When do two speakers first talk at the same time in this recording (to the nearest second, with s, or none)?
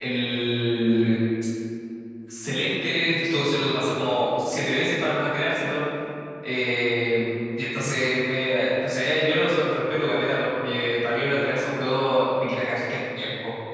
none